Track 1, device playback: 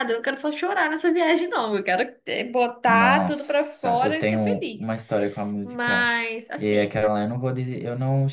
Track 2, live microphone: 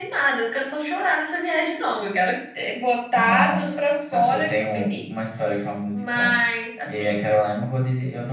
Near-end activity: none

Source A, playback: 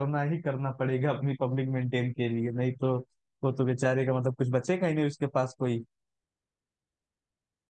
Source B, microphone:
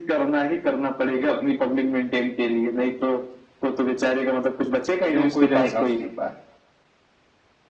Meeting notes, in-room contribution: present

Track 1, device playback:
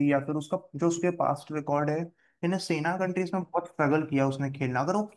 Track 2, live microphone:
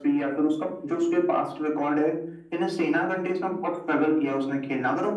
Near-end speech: none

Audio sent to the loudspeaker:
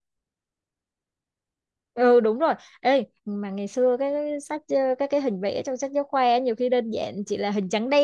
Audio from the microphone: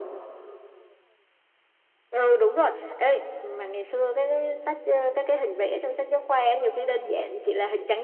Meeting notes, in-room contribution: none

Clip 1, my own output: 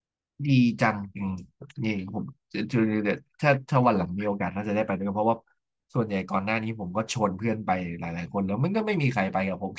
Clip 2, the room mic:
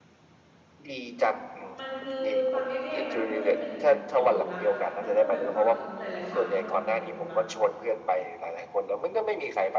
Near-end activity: present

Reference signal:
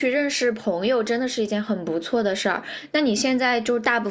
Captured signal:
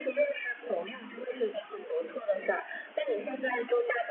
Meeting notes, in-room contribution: none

